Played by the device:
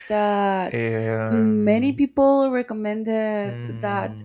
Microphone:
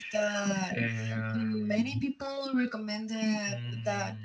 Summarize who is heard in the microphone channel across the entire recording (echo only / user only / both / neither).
echo only